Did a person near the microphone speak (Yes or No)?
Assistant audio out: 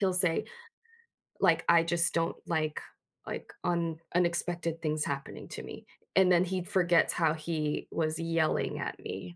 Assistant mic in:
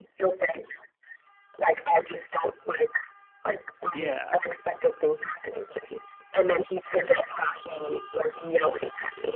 Yes